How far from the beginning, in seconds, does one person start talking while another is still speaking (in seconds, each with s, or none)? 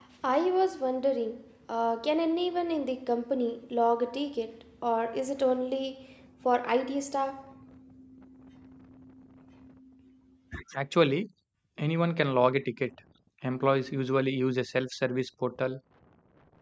none